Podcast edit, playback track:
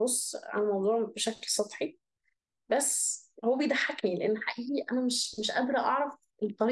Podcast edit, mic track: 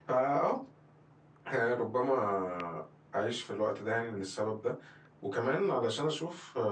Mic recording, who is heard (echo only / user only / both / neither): user only